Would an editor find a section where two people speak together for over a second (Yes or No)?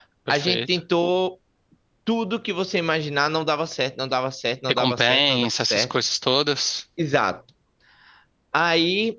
Yes